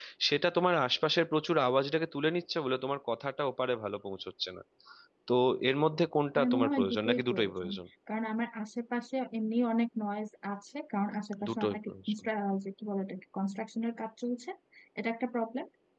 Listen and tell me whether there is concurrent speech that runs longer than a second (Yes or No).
Yes